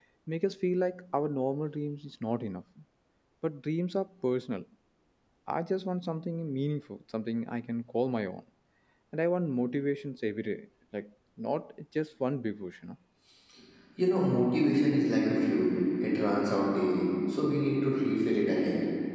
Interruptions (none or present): none